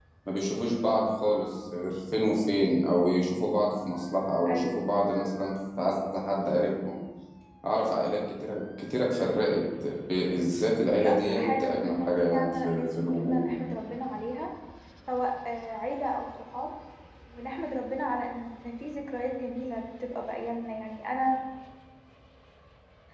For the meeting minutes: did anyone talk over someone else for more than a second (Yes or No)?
Yes